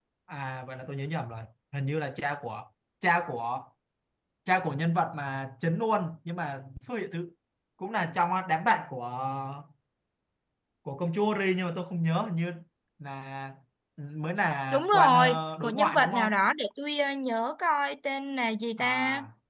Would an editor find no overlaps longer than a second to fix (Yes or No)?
No